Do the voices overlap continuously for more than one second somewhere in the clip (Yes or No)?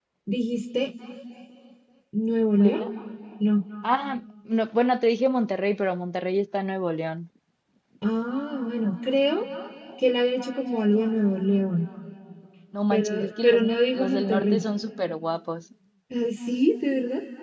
Yes